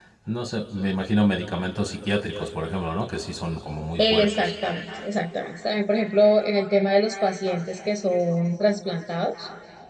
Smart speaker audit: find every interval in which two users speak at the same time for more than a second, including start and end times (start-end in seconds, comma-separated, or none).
none